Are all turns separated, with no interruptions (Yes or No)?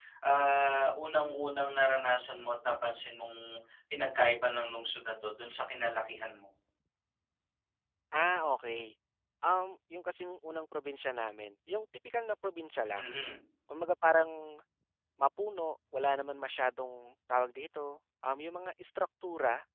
Yes